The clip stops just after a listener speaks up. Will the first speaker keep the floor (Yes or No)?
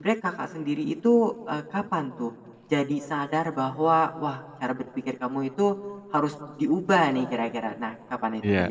No